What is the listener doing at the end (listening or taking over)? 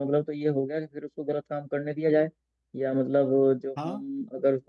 listening